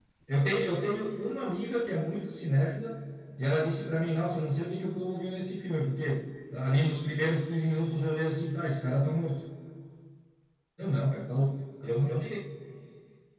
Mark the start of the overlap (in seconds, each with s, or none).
none